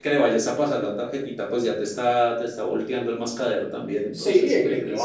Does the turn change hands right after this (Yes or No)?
Yes